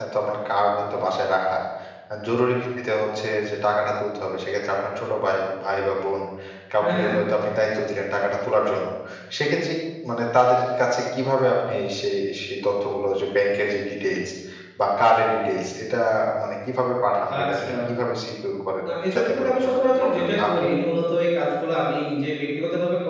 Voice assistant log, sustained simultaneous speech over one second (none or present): present